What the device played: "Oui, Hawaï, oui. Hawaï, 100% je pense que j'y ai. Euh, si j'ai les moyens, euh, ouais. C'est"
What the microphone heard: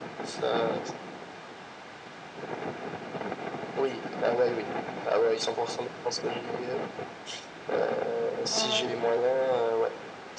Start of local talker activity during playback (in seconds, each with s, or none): 8.5 s